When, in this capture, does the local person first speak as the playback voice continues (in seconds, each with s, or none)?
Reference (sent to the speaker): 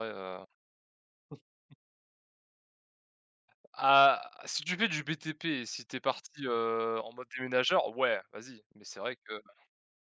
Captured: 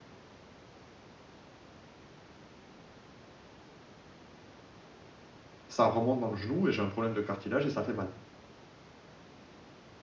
5.7 s